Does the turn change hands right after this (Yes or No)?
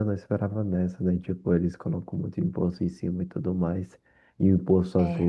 No